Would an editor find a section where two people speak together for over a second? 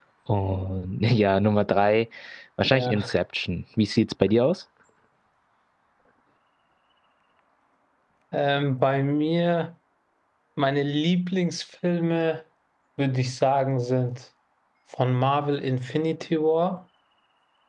No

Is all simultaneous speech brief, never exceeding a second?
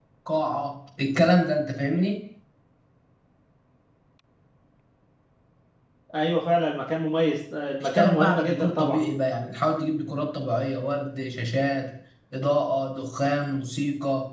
No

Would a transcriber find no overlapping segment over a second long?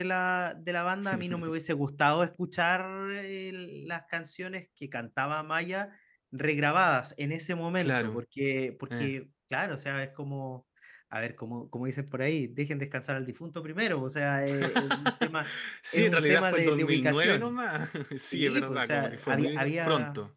No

